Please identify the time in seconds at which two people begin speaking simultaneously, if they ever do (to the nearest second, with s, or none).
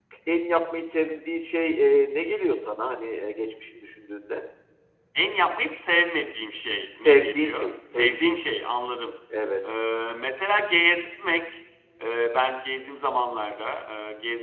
7 s